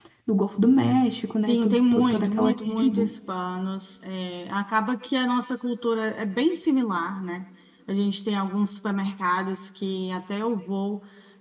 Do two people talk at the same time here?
Yes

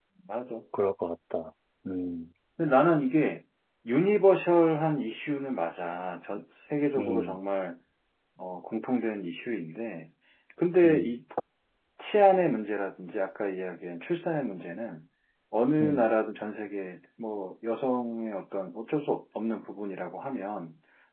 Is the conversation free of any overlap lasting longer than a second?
Yes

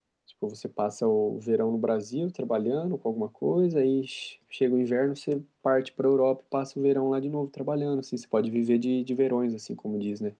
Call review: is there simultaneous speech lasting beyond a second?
No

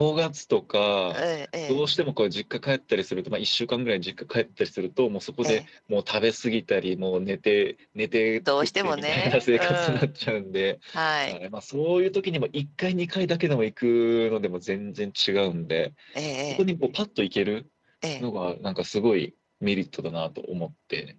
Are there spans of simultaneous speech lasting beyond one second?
Yes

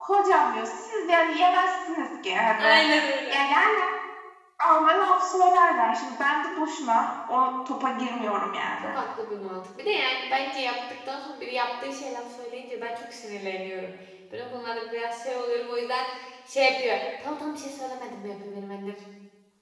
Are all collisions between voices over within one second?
Yes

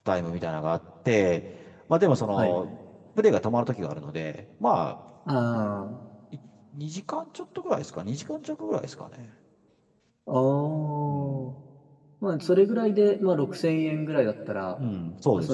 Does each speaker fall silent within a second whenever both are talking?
Yes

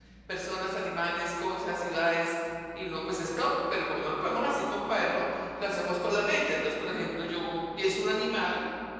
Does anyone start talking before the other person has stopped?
No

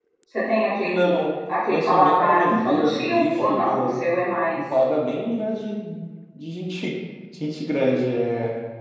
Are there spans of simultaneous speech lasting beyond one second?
Yes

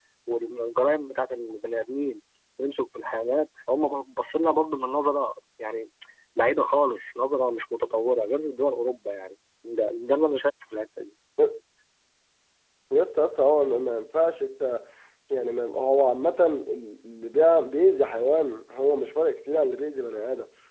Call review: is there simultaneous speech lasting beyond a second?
No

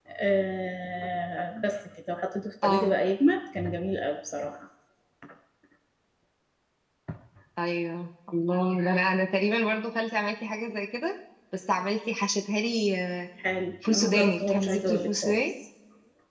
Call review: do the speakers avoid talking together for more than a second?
No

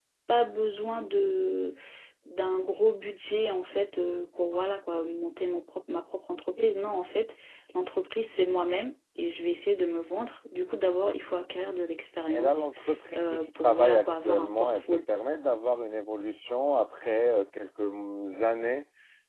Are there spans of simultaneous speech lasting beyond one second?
Yes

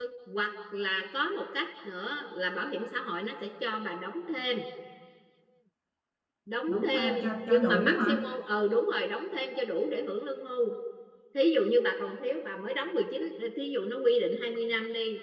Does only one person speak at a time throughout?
No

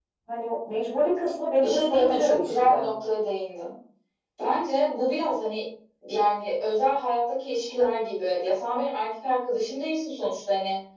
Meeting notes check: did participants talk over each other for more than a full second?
Yes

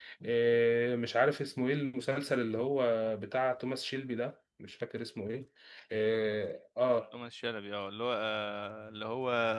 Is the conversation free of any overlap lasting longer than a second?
Yes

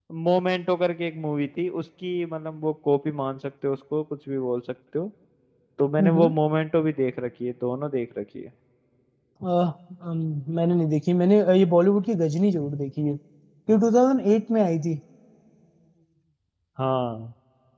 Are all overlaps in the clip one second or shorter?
Yes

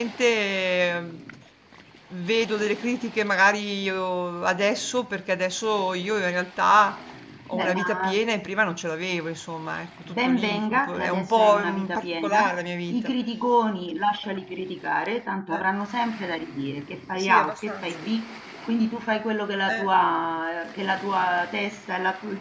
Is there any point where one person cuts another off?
Yes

